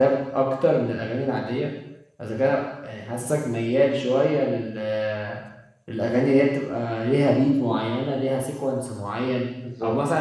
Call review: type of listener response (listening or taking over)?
listening